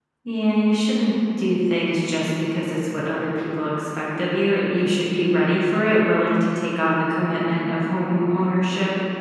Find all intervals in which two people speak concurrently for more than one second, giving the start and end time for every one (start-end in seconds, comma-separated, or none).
none